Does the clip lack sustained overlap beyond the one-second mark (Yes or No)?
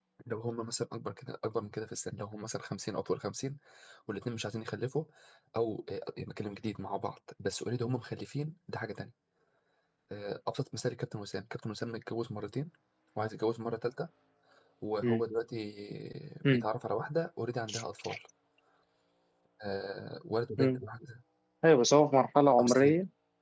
Yes